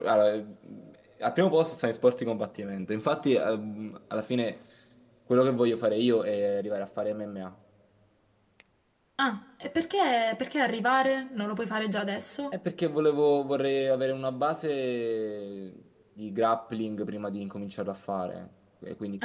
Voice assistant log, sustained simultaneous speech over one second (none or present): none